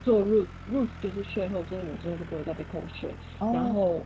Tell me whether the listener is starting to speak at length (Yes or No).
No